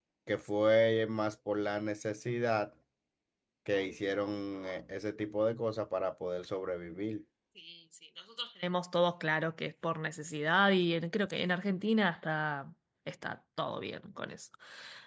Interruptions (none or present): none